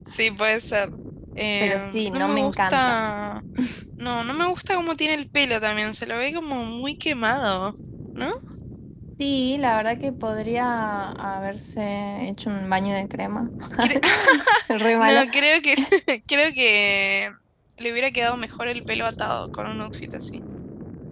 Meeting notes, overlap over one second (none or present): present